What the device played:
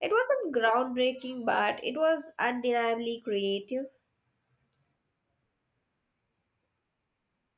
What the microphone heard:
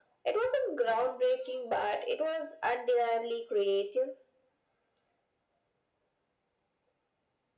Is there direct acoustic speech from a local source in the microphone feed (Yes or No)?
No